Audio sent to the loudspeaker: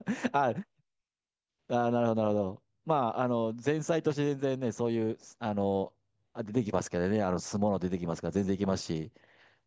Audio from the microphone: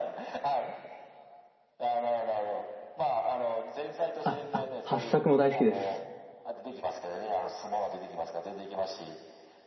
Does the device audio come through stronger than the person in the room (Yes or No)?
No